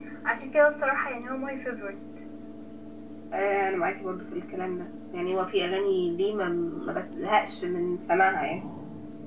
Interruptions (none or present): none